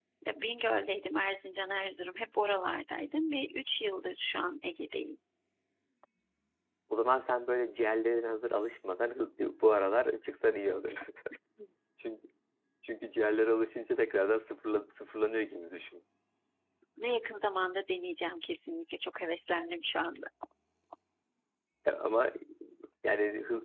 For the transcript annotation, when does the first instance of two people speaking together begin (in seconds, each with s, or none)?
none